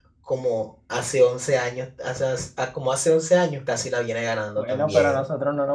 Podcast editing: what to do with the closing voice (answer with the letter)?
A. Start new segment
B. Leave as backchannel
A